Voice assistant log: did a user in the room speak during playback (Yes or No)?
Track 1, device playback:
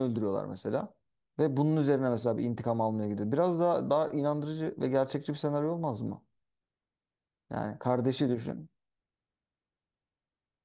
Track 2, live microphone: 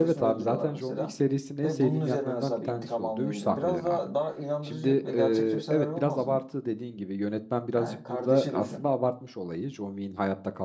Yes